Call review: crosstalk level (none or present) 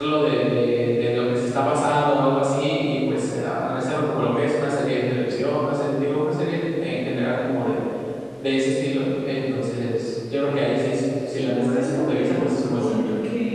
present